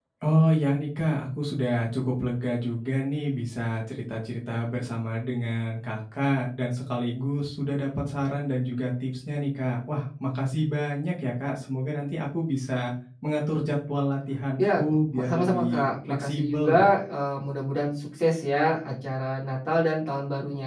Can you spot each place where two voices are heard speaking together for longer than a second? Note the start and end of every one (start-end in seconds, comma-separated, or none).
15.1-16.7